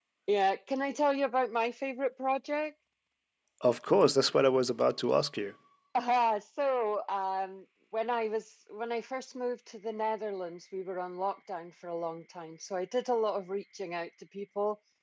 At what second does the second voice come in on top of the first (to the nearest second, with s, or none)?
none